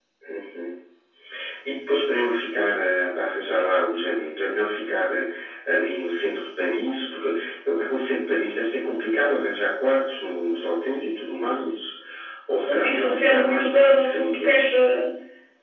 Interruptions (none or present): present